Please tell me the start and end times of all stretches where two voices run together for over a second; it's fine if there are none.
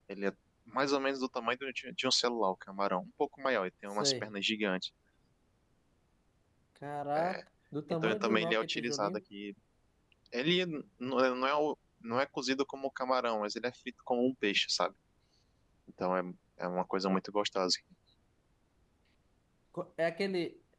7.9-9.2

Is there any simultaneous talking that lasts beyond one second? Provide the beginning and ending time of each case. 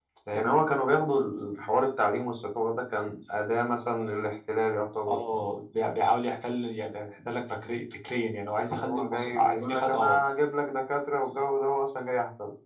8.5-10.2

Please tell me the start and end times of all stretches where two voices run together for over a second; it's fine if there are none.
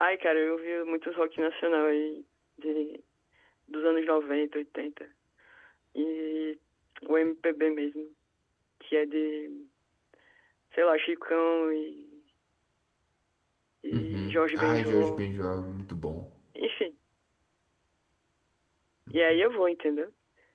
13.9-15.3

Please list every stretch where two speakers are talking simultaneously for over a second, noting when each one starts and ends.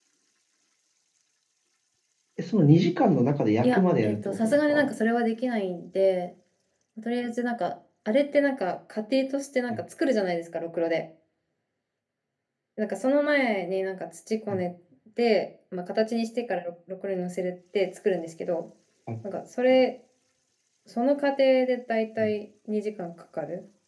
3.6-4.8

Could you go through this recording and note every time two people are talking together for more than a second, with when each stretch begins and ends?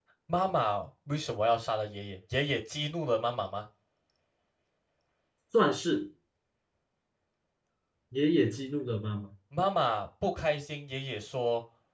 none

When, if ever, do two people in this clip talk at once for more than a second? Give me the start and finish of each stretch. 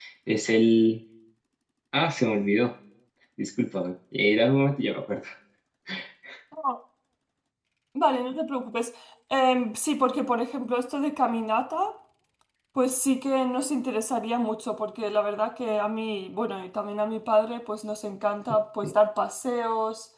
none

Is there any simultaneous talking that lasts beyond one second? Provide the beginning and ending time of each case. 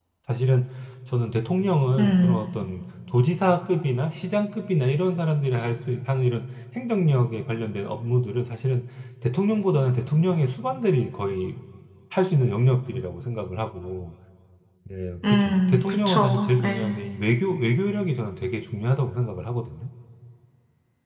15.3-16.8

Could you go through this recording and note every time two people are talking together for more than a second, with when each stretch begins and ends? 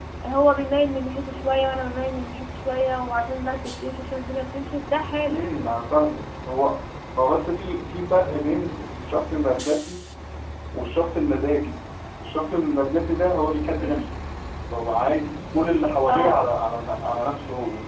none

